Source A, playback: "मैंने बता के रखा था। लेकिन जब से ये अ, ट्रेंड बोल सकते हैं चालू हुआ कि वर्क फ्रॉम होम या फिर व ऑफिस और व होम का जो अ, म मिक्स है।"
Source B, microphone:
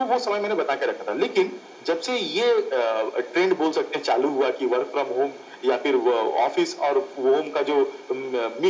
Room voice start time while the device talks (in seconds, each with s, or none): none